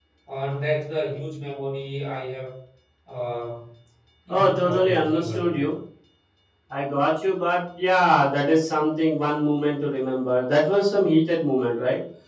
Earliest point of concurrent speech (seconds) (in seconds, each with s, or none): 4.3 s